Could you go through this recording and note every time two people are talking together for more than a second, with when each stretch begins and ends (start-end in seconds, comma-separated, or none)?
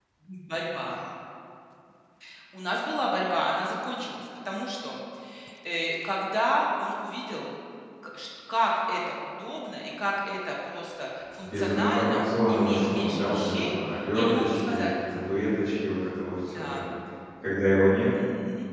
11.4-14.9